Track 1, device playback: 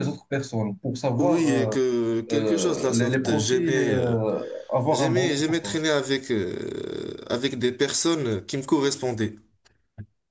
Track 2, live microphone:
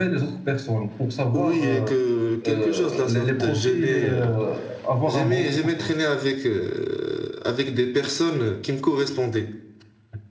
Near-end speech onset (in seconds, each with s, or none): none